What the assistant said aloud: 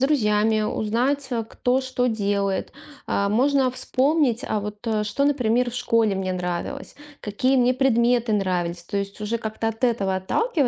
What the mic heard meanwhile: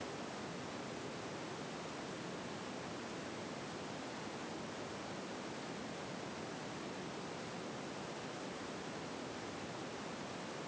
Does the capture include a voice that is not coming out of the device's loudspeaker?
No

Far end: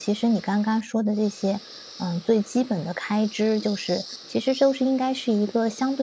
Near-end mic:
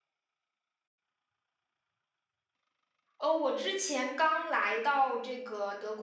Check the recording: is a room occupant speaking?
Yes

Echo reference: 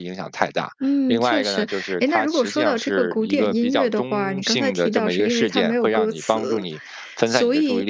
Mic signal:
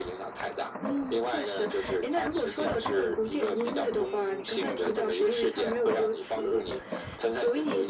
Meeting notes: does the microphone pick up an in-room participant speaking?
No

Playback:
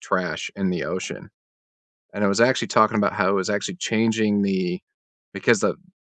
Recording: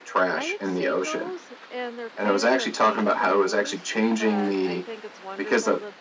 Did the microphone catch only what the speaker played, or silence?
No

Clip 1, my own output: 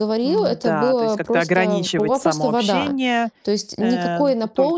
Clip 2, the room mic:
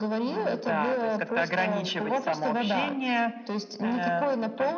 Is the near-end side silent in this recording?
Yes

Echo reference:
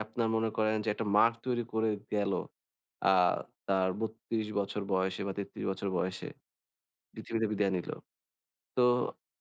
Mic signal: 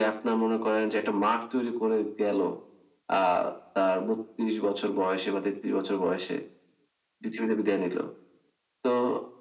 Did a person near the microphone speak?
No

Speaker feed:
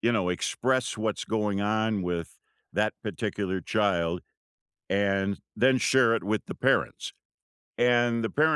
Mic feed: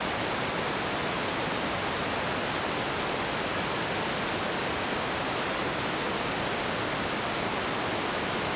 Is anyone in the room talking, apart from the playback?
No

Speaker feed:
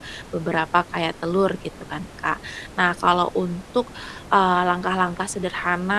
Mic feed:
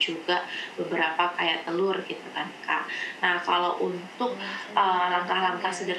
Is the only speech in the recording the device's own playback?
No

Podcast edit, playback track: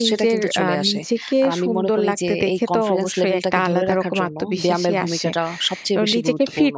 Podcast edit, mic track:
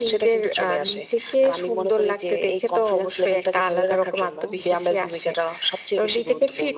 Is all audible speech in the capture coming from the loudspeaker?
Yes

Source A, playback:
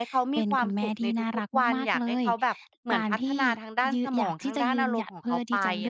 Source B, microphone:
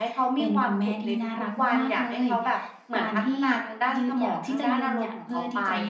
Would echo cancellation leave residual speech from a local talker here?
No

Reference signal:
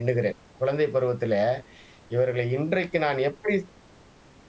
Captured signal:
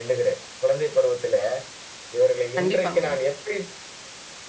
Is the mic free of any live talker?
No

